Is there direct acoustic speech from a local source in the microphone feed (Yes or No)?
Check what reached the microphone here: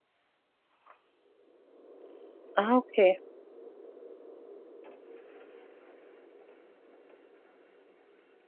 Yes